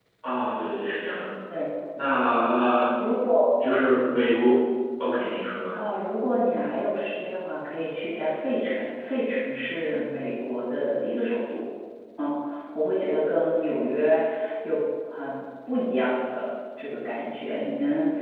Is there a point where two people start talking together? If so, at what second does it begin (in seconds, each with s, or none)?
none